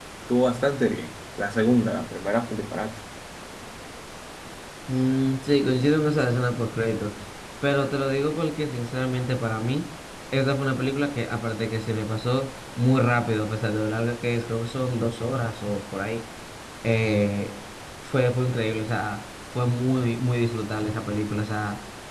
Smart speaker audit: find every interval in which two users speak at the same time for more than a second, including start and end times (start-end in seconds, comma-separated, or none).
none